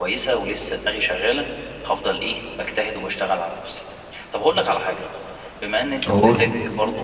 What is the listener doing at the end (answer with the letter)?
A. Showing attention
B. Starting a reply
A